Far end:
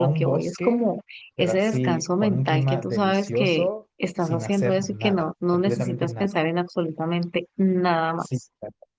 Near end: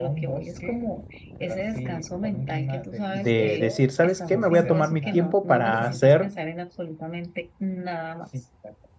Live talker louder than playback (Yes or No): Yes